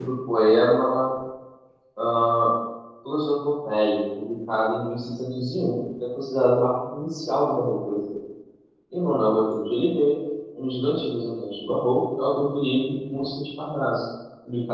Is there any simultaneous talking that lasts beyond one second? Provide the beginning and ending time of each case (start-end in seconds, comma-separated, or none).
none